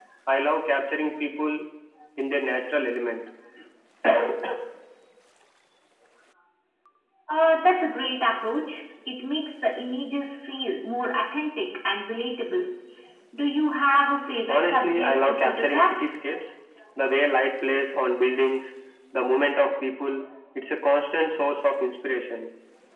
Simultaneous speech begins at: 14 s

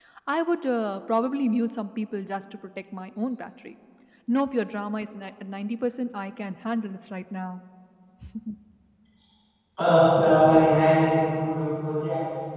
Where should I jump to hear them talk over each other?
none

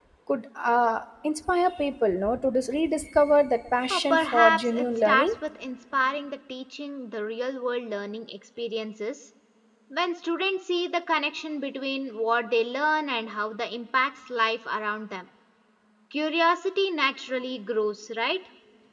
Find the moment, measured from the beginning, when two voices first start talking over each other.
4 s

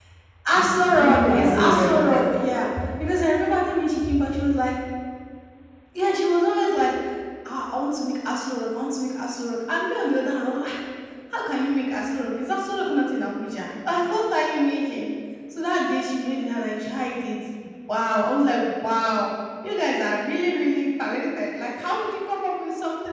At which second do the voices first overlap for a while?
1 s

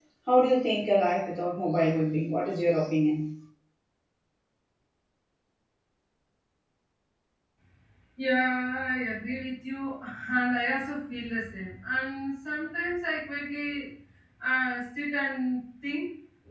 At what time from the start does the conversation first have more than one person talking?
none

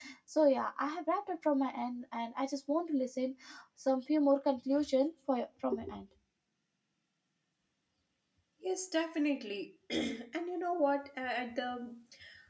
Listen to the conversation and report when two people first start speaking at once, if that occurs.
none

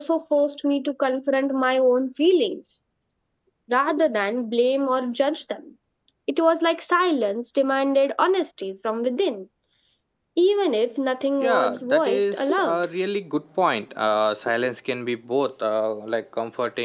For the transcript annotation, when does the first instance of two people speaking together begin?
11 s

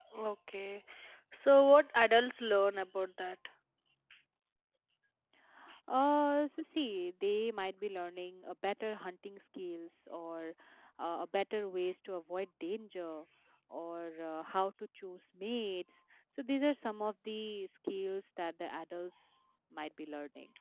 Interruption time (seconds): none

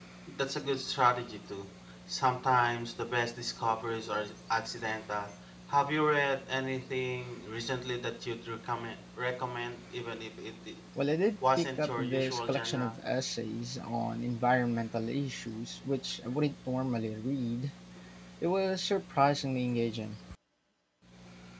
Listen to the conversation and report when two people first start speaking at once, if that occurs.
12 s

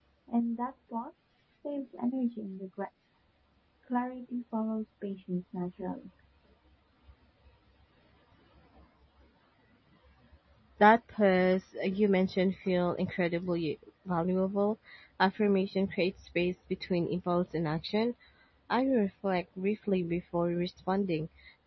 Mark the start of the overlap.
none

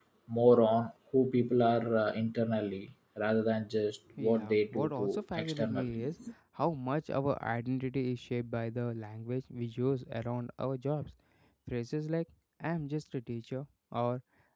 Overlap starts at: 4 s

